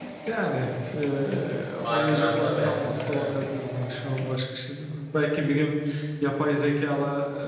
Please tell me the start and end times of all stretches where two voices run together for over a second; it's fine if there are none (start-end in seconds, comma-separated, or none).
1.8-3.3